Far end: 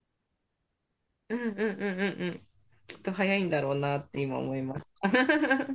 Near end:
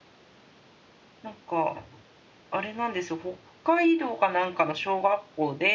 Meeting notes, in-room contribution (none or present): present